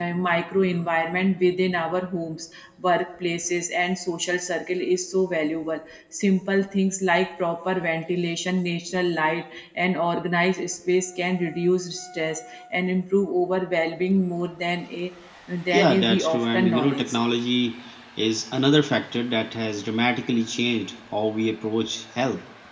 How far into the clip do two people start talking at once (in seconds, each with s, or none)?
15.7 s